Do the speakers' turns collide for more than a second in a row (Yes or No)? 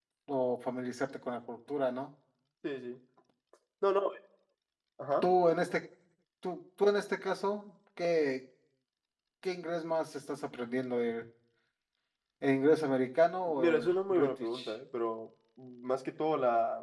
Yes